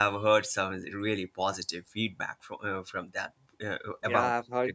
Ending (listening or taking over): taking over